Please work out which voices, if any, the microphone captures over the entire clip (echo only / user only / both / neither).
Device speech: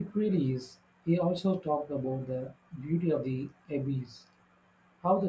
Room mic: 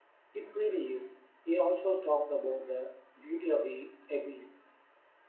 echo only